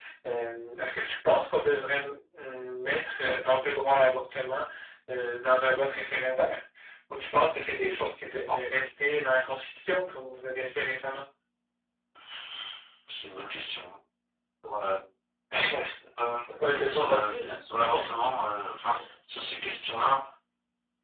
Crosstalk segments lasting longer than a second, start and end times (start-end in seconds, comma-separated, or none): 16.5-17.8